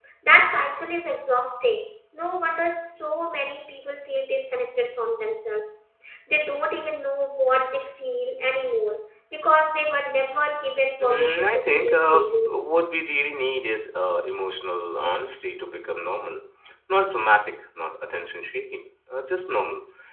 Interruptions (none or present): present